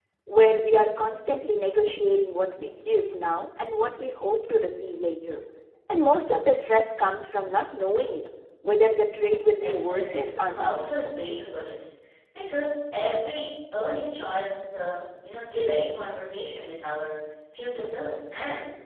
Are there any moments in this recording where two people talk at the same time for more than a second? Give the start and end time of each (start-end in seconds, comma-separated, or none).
9.5-10.8